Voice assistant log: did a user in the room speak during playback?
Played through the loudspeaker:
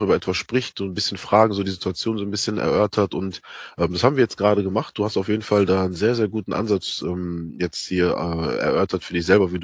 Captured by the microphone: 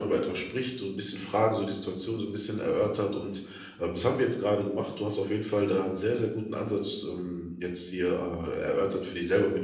No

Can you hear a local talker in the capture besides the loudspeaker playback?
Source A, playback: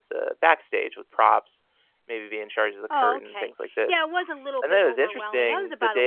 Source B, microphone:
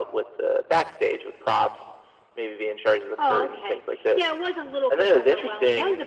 No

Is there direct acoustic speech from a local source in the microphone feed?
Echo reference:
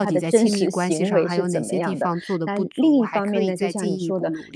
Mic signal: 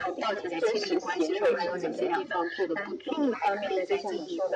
Yes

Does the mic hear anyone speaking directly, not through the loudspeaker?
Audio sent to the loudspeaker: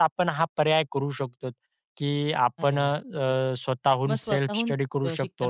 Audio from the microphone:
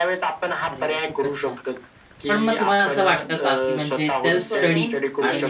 Yes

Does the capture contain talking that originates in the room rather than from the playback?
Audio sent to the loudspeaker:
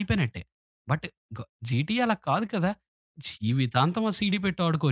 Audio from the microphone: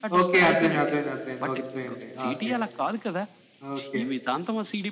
Yes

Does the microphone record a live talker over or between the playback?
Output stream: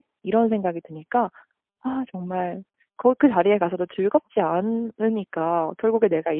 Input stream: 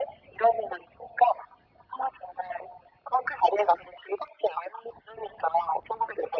No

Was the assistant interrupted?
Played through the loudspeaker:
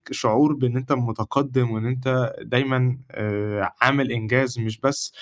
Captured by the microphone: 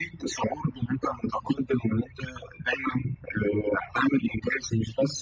No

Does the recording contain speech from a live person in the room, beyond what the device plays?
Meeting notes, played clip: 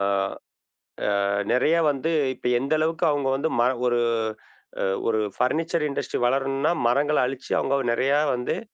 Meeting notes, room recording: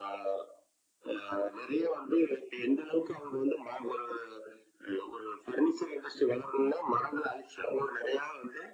No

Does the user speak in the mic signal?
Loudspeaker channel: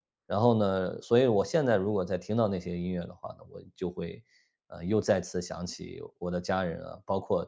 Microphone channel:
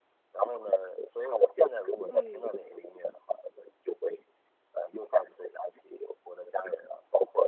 Yes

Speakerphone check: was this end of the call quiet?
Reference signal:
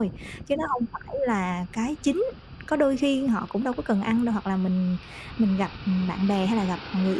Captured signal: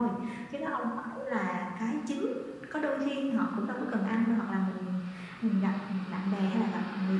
Yes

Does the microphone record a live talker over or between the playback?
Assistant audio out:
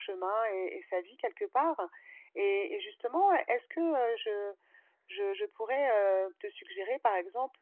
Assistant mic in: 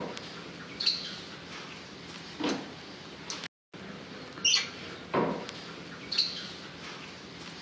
No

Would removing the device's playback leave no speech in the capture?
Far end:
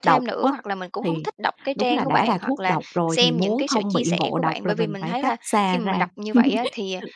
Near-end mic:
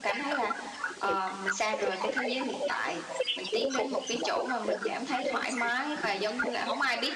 No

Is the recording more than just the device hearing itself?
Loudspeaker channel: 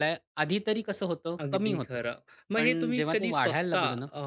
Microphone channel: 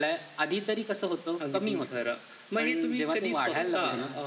Yes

